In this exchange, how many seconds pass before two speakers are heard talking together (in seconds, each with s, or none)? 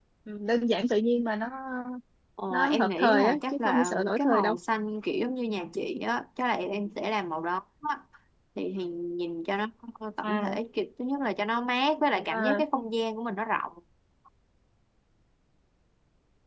2.5 s